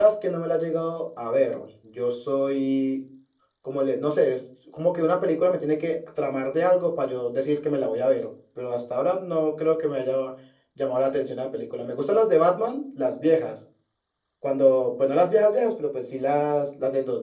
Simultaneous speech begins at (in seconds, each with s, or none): none